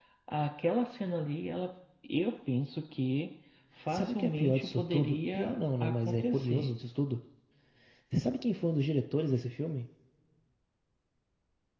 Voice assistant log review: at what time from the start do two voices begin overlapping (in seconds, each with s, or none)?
3.9 s